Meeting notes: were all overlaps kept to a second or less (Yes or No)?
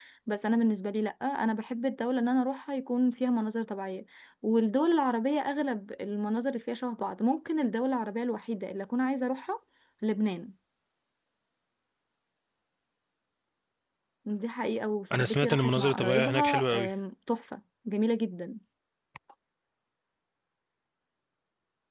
No